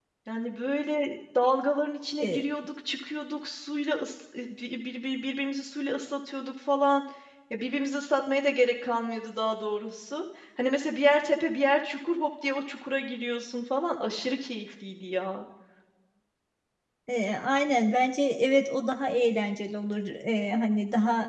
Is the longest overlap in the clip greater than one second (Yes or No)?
No